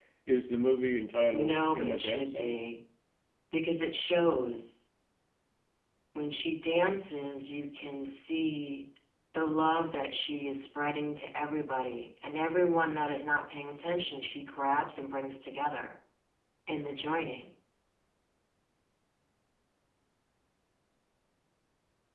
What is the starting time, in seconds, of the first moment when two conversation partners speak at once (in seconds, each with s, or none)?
1.3 s